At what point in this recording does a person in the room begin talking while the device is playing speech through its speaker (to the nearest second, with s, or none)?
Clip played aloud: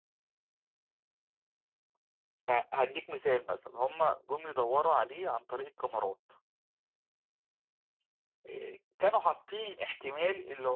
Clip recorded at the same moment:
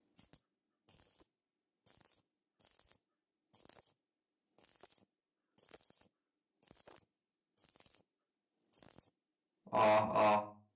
10 s